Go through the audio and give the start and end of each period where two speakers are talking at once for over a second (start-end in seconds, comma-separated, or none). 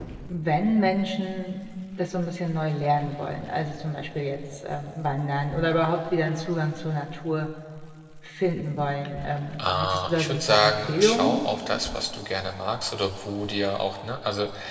9.6-11.4